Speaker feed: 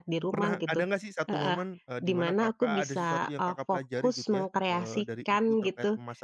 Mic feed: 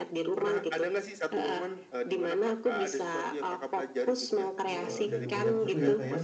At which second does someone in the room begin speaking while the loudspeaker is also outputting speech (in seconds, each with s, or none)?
4.6 s